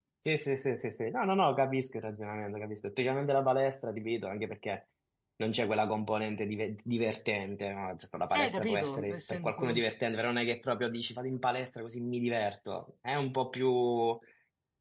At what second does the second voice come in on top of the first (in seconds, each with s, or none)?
8.3 s